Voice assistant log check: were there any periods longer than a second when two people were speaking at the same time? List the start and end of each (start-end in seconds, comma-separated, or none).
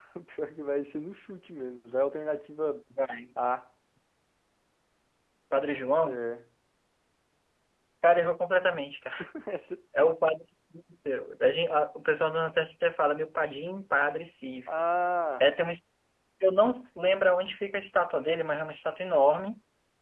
none